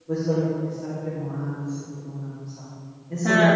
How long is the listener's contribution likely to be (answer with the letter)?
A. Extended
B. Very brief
B